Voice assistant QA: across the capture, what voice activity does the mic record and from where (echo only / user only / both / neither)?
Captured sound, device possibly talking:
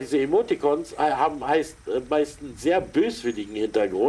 echo only